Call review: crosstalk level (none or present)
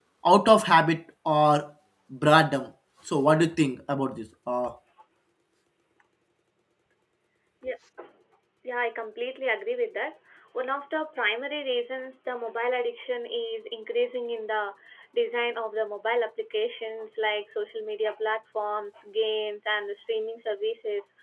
none